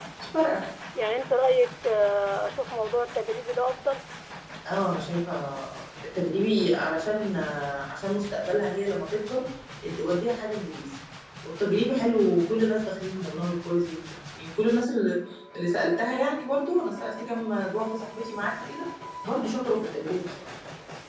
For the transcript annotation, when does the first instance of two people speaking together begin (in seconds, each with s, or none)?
none